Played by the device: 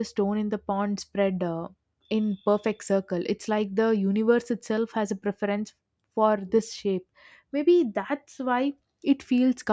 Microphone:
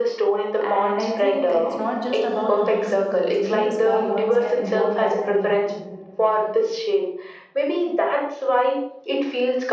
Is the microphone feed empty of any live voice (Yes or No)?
No